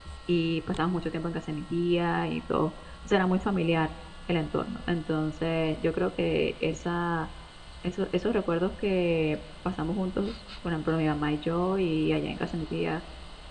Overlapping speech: No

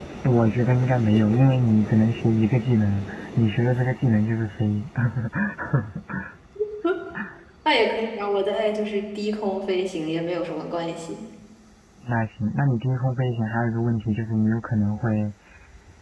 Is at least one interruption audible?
No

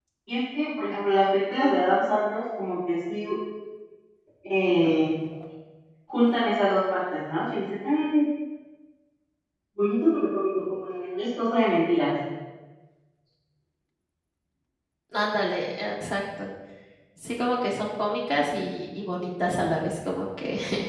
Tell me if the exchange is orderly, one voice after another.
Yes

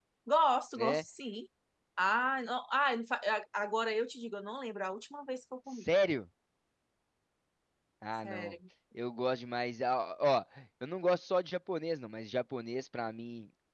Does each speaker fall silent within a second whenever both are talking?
Yes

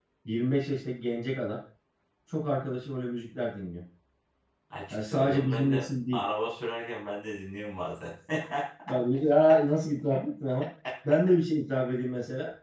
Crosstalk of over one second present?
Yes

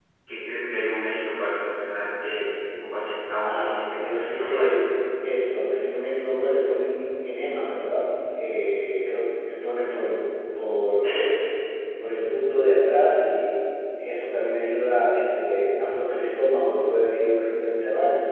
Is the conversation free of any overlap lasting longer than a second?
No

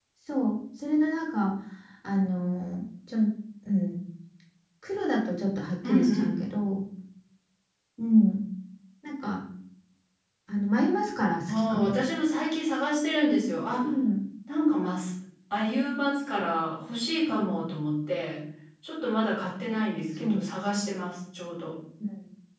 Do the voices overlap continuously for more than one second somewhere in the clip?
No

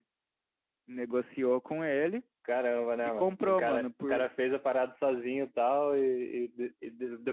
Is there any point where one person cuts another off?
Yes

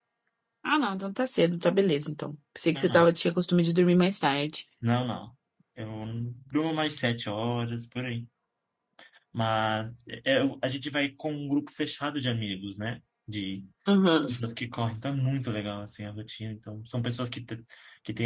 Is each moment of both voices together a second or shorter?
Yes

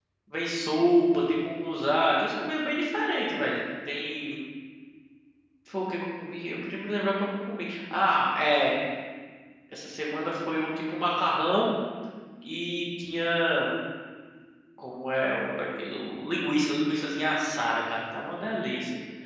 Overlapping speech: No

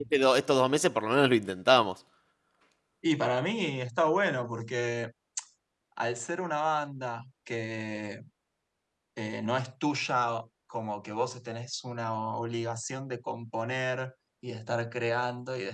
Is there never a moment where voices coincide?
Yes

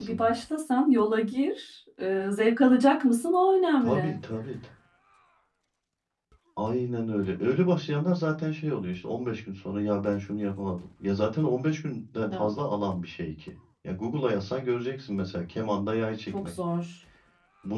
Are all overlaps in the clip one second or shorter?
Yes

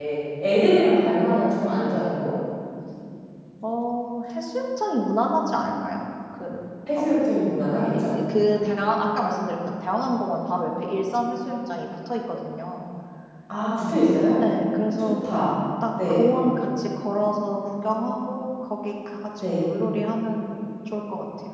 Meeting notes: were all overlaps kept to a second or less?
Yes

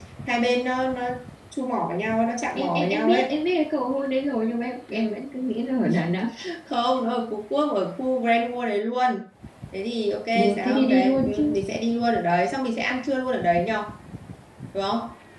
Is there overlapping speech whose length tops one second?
Yes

